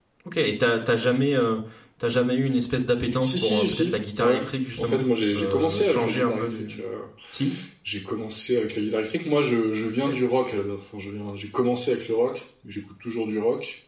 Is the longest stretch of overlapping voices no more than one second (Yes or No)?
No